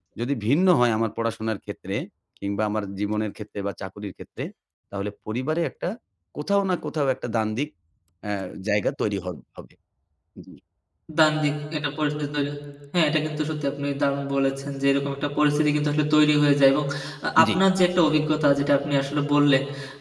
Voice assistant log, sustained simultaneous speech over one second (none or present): none